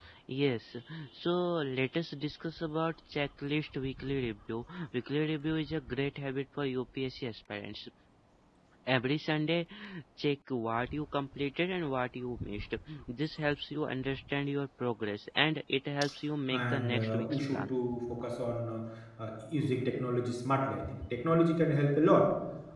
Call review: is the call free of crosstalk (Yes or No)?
No